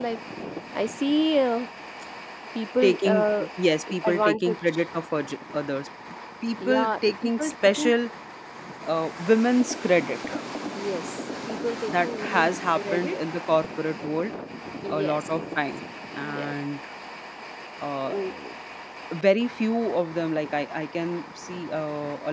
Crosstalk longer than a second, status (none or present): present